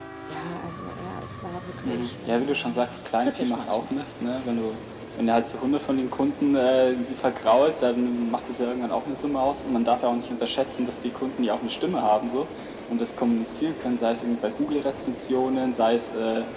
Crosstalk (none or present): present